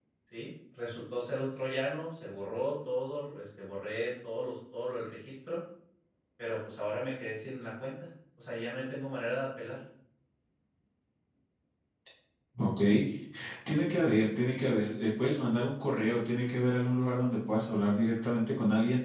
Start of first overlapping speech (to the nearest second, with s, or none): none